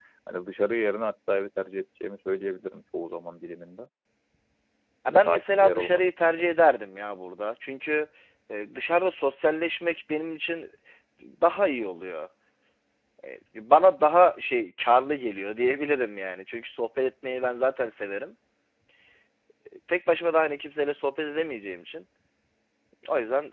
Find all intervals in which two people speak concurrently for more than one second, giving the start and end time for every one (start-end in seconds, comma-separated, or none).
5.1-6.5